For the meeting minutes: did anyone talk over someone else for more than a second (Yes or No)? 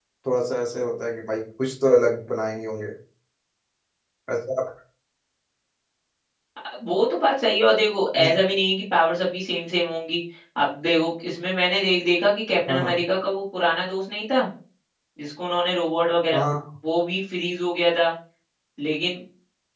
No